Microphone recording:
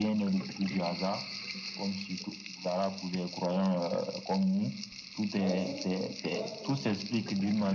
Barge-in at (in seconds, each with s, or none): 5.4 s